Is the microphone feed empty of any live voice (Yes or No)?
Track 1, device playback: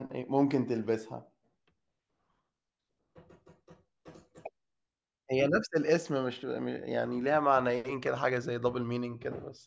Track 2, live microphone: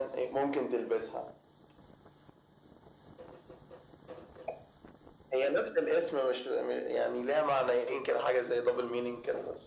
Yes